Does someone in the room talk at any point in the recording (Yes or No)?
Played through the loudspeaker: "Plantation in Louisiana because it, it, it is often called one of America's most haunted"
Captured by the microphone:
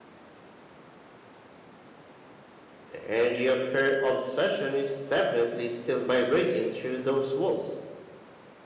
Yes